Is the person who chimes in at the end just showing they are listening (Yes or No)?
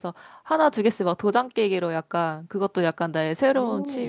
Yes